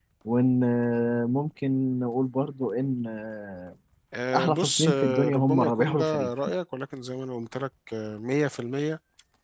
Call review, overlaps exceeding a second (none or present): present